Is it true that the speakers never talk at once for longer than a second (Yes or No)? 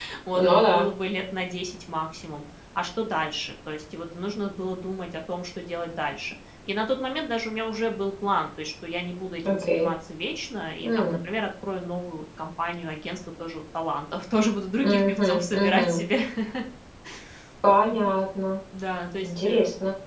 No